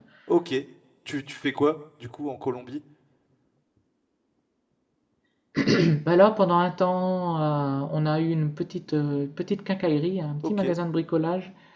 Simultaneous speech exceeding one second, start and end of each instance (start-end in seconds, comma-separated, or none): none